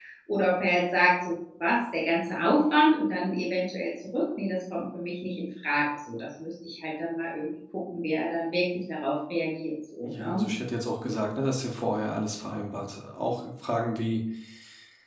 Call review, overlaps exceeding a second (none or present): none